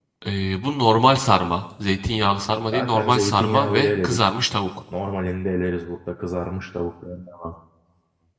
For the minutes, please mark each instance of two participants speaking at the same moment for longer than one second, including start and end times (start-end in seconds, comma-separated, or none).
2.7-4.2